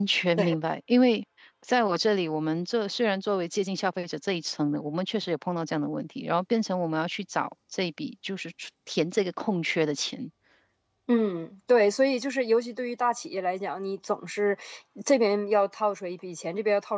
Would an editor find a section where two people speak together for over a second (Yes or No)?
No